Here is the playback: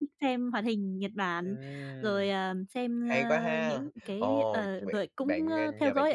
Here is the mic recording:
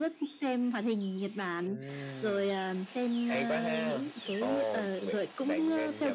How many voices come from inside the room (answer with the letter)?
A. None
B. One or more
A